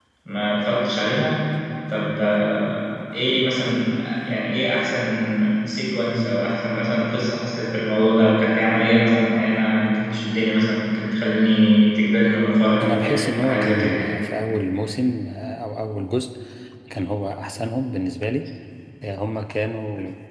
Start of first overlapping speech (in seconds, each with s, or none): 12.8 s